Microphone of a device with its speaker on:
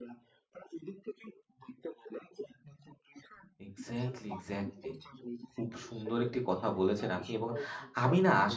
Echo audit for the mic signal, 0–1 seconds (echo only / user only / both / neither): echo only